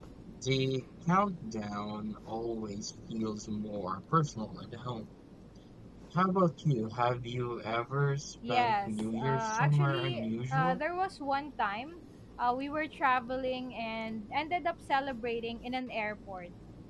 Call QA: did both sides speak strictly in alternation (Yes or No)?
No